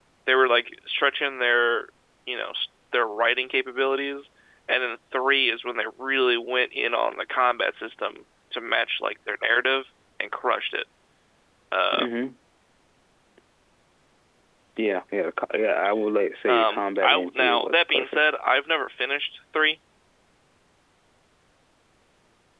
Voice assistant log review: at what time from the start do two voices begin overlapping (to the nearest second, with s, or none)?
16 s